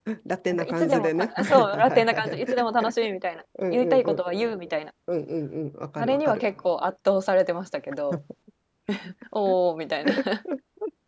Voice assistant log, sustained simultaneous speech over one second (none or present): present